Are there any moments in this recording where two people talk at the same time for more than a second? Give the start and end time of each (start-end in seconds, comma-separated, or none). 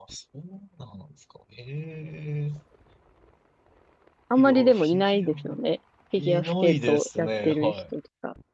4.4-5.6, 6.2-7.7